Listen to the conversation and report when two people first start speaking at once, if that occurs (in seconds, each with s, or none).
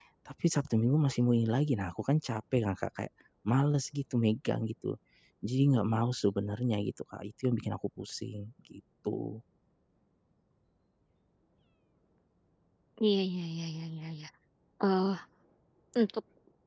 none